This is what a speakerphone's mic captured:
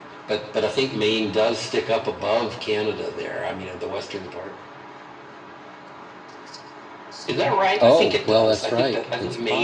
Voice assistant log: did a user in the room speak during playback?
Yes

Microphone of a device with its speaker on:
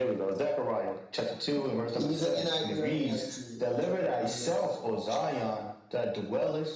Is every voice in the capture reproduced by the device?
Yes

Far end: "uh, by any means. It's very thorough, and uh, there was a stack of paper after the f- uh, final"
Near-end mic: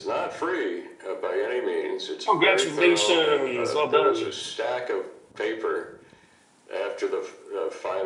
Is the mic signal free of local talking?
No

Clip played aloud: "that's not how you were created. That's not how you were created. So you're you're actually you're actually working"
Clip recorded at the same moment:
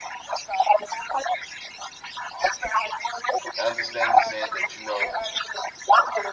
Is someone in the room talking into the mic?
Yes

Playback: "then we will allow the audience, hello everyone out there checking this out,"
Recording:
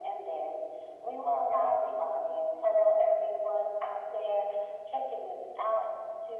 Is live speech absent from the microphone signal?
Yes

